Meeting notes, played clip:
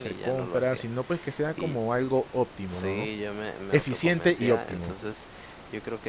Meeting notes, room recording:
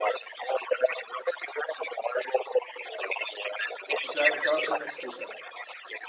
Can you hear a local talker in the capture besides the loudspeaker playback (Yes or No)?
Yes